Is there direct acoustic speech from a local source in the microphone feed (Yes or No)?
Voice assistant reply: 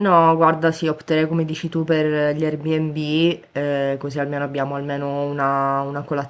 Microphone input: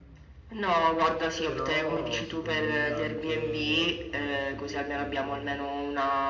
Yes